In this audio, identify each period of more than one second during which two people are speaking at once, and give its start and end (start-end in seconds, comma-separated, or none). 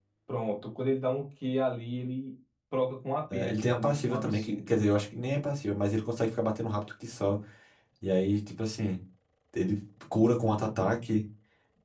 3.3-4.8